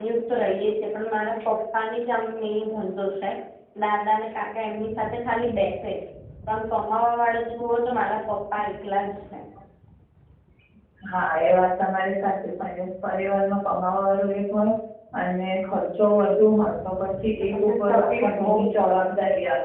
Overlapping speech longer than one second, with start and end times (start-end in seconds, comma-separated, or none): 17.4-19.1